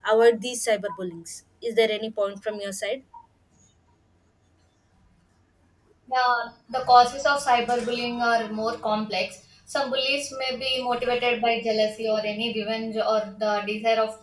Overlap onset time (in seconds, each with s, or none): none